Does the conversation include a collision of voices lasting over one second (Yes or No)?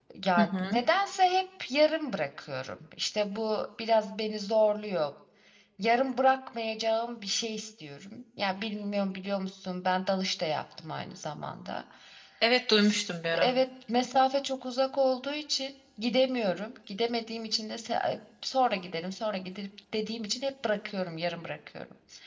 No